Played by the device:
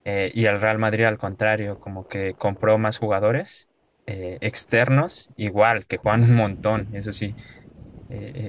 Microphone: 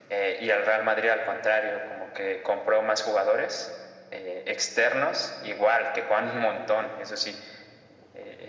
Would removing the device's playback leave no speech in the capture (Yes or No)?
Yes